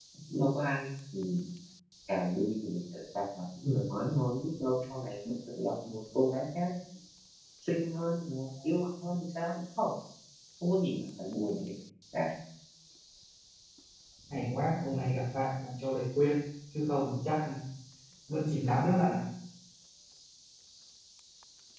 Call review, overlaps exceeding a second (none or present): none